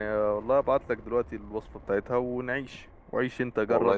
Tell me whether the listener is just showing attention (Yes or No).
No